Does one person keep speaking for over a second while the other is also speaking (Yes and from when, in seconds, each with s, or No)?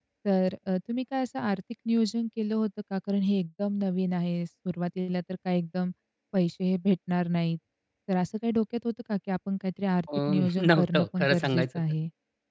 Yes, from 10.1 s